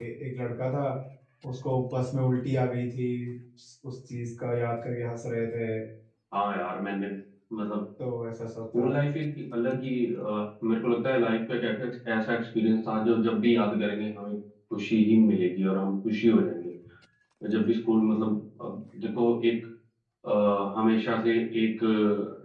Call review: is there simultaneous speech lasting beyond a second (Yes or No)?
No